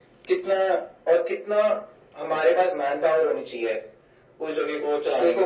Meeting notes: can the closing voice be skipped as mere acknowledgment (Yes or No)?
No